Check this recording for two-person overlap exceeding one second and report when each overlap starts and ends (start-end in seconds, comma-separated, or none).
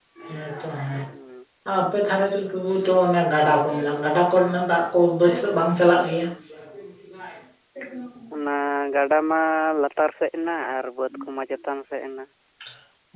none